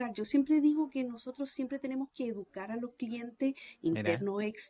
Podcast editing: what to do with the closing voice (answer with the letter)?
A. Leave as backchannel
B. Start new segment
A